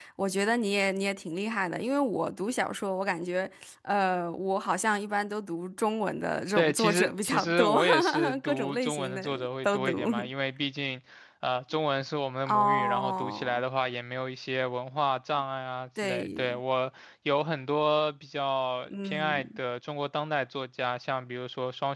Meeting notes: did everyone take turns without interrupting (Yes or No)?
No